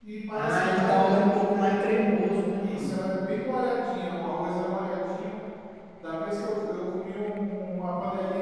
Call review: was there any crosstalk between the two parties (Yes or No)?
Yes